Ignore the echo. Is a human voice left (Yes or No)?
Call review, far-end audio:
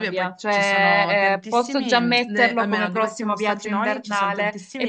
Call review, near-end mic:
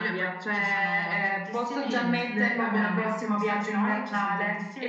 No